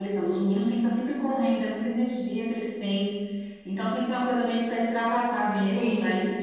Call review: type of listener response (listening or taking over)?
listening